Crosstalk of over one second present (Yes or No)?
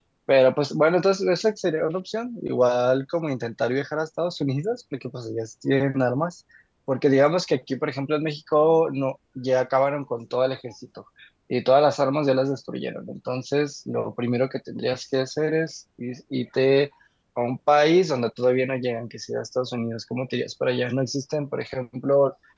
No